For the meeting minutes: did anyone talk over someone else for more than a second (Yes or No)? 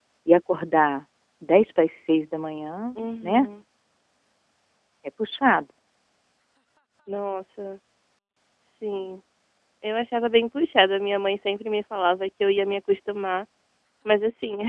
No